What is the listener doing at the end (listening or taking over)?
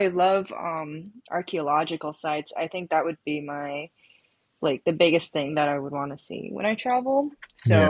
listening